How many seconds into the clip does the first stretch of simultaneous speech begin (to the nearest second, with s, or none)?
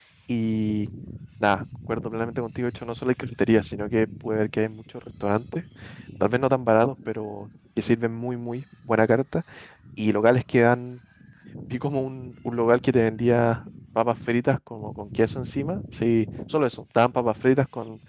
none